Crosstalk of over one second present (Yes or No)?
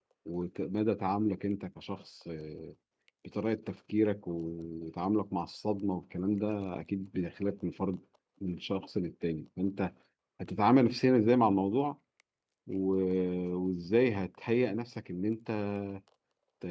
No